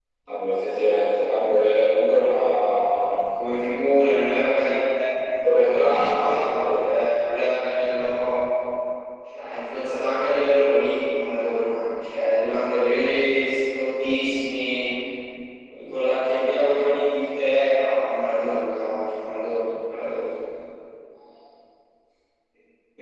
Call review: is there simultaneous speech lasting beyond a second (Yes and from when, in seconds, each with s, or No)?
Yes, from 5.6 s